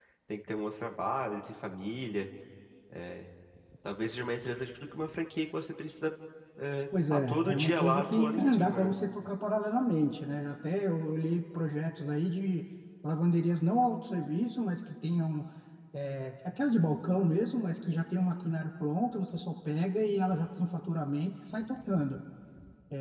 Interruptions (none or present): present